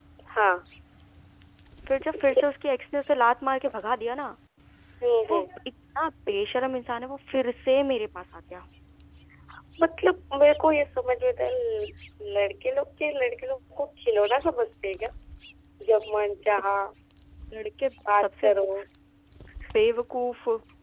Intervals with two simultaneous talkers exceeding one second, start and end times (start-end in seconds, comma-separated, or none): none